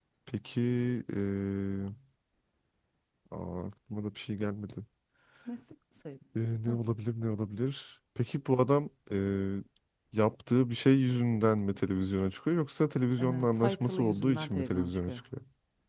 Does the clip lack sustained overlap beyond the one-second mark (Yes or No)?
No